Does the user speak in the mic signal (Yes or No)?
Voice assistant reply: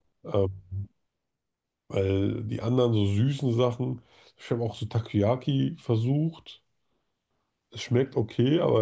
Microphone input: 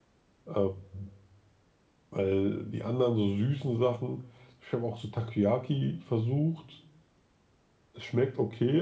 No